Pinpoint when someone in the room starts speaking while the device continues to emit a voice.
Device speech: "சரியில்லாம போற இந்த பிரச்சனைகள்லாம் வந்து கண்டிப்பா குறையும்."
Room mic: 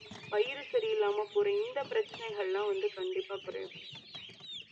none

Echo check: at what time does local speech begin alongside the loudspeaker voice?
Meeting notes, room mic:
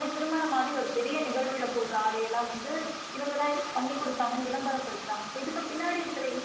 none

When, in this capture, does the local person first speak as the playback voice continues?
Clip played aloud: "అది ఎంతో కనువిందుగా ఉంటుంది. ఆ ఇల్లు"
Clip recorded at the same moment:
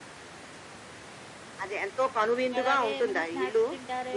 2.6 s

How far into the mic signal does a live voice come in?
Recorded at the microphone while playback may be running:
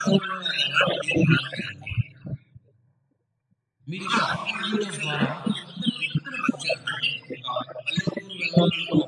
3.9 s

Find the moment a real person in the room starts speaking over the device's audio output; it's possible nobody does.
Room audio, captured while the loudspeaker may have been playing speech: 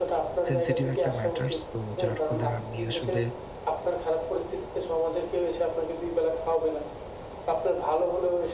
0.5 s

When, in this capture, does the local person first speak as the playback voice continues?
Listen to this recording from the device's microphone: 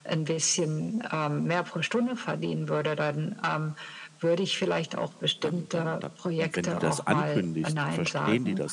5.4 s

